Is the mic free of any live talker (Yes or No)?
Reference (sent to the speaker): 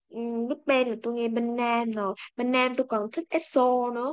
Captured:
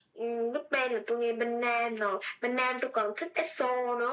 Yes